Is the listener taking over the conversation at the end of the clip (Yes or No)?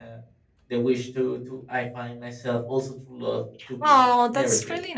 Yes